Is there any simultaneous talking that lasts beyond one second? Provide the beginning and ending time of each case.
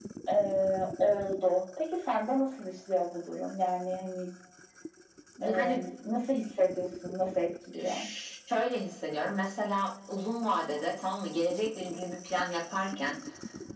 none

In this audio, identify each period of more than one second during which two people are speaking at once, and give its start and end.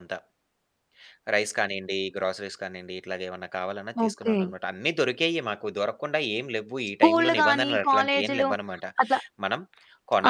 7.0-8.5

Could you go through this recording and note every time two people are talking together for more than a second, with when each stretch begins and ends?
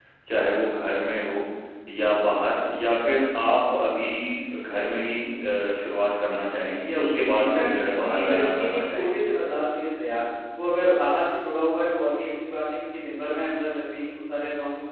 7.3-9.2

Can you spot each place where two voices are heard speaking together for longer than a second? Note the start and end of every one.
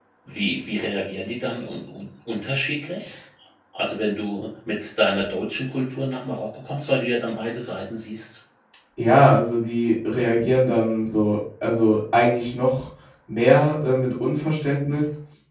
none

